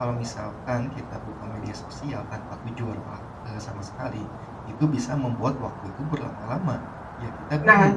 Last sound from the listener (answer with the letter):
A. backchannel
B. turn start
B